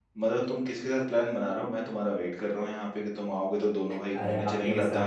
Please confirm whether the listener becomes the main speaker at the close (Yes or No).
Yes